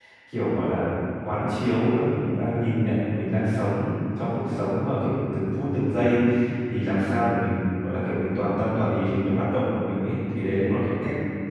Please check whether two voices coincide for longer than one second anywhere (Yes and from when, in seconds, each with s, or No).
No